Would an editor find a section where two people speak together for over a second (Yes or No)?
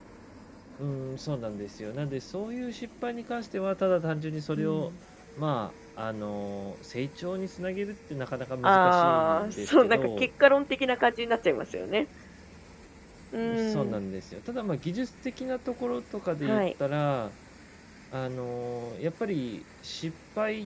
Yes